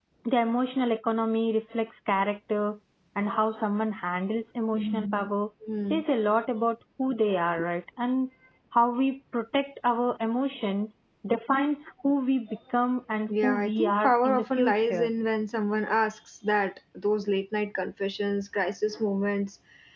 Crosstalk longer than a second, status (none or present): present